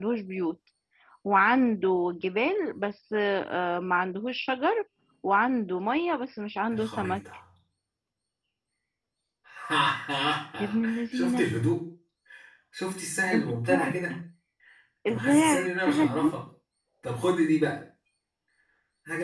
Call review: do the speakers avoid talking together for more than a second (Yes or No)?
No